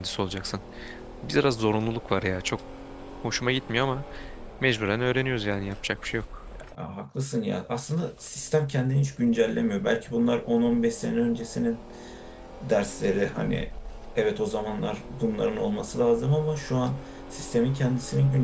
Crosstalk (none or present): none